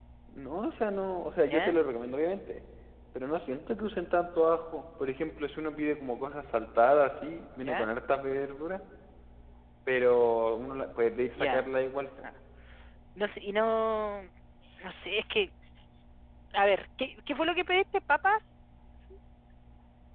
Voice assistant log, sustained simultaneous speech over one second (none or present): none